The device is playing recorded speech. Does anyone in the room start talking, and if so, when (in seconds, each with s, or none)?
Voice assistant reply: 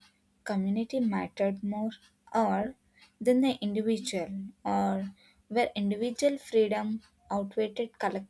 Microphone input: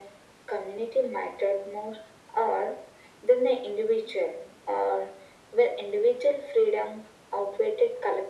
none